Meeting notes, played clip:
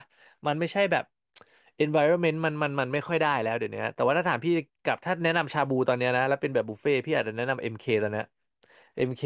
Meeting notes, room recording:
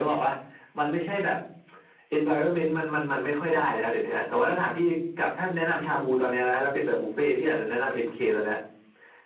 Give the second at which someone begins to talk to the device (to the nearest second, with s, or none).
none